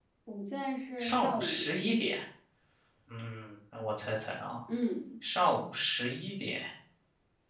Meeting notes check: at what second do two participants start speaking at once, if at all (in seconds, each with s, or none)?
1.0 s